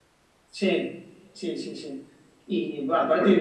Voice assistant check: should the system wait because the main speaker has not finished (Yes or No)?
Yes